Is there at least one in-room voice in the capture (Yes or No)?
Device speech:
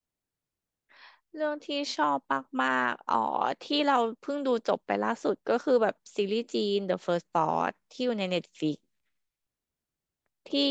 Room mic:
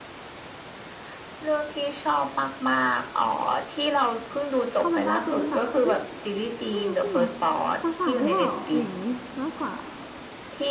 Yes